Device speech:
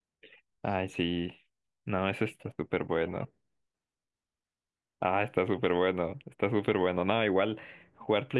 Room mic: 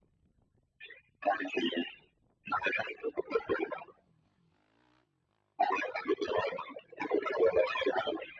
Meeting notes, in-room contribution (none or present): none